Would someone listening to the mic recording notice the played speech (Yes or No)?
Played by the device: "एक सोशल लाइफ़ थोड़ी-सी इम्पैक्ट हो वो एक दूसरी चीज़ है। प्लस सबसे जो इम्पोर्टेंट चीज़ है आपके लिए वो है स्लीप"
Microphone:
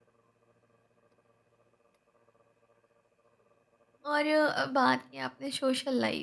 No